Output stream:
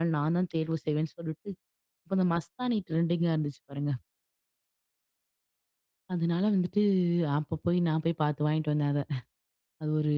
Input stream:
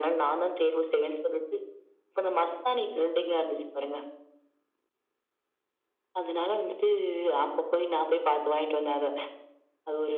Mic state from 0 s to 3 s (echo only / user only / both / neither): echo only